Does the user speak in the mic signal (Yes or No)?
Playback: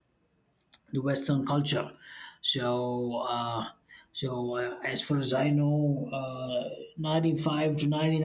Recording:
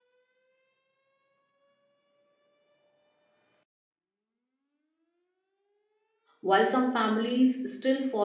Yes